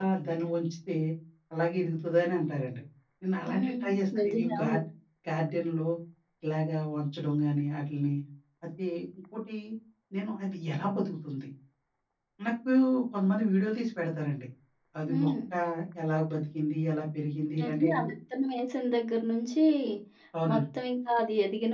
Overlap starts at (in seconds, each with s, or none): 3.5 s